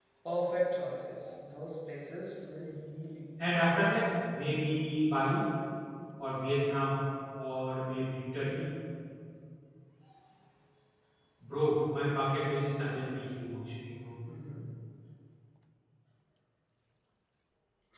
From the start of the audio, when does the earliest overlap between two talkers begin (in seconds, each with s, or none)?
none